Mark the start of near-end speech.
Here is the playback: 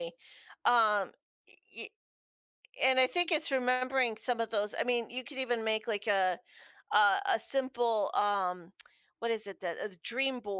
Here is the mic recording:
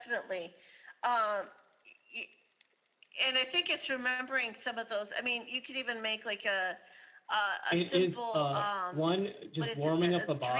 7.7 s

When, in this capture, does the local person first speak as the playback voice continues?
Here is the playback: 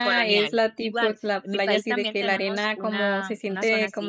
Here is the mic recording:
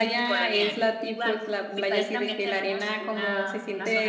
none

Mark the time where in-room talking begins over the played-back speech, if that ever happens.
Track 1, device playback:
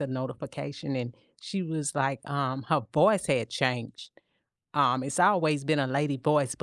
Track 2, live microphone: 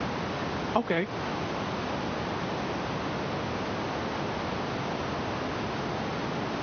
0.7 s

